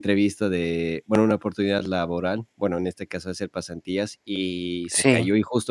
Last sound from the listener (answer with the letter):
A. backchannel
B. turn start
A